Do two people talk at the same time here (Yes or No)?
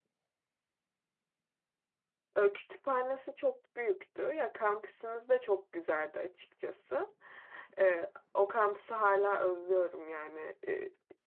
No